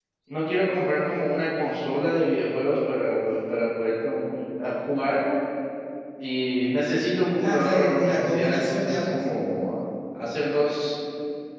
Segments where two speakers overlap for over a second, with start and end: 7.4-9.2

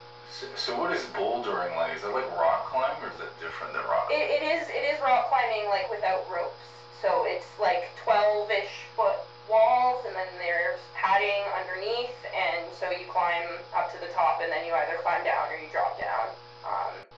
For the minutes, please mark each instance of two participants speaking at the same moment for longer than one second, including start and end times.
none

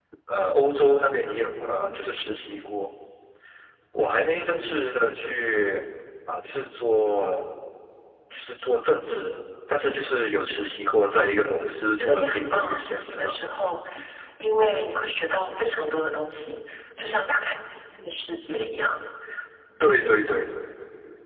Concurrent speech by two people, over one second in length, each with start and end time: 11.9-13.3

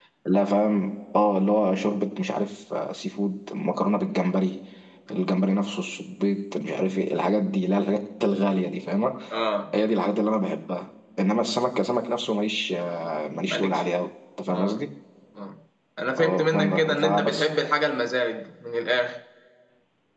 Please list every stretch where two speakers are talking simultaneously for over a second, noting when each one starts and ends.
16.2-17.5

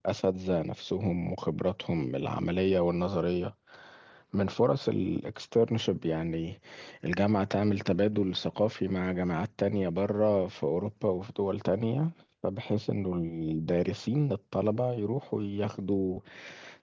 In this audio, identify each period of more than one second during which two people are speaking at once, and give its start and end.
none

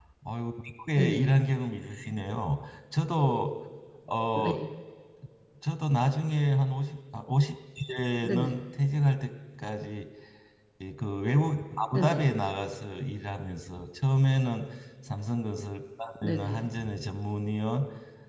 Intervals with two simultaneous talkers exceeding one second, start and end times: none

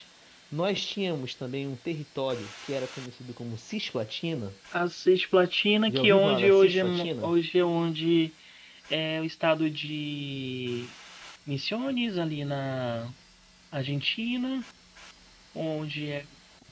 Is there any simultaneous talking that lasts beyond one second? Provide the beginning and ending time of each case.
5.9-7.3

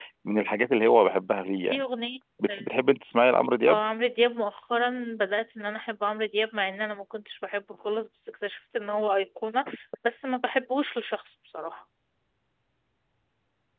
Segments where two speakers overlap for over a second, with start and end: none

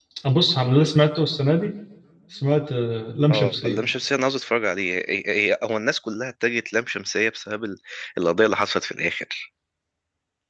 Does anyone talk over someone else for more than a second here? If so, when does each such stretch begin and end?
none

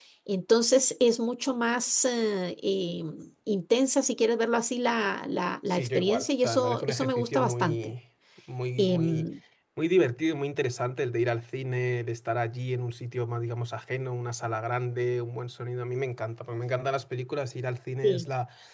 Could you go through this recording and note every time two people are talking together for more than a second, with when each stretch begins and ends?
5.7-7.9

